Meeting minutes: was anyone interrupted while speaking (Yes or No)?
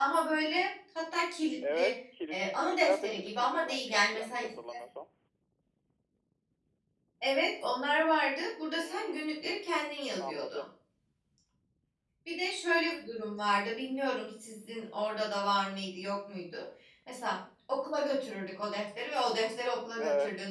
Yes